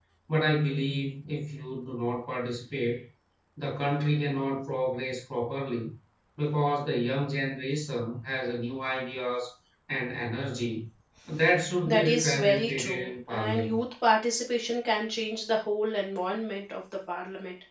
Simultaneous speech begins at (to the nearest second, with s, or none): 12 s